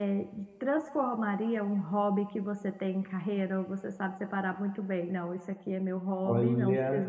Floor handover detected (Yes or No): No